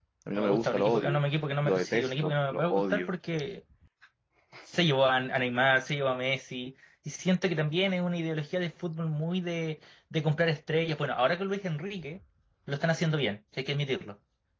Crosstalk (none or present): present